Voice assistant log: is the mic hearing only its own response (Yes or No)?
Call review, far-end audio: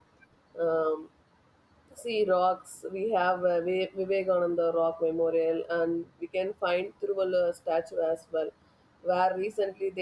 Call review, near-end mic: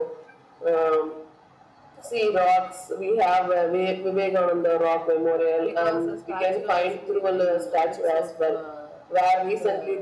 No